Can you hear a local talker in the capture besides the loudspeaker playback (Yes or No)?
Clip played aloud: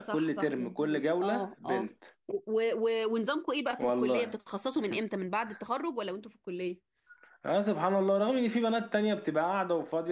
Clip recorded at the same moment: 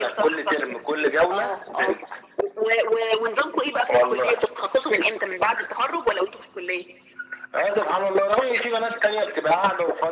No